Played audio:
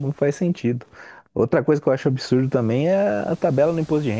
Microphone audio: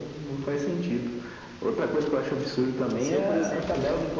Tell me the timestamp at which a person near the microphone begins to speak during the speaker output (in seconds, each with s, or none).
3.0 s